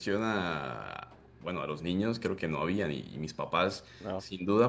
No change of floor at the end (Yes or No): Yes